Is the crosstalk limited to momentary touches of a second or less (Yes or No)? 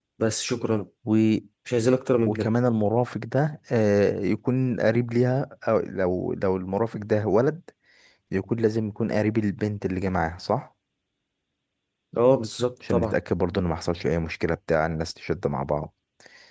Yes